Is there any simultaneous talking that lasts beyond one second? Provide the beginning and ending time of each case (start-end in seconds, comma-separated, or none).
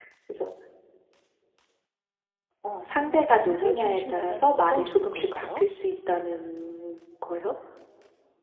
2.7-5.6